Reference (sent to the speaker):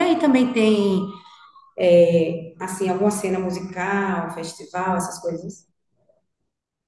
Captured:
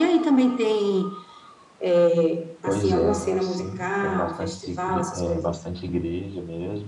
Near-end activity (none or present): present